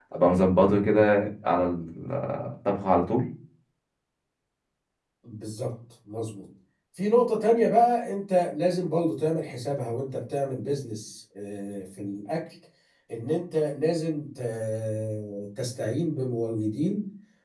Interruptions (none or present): none